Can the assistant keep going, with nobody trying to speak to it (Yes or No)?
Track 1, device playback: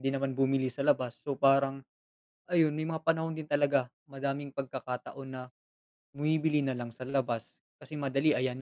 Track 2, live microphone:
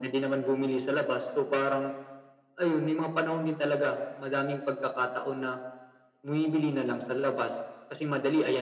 Yes